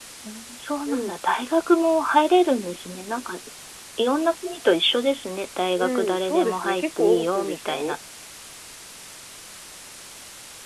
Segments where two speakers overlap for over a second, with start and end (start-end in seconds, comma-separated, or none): 5.8-8.0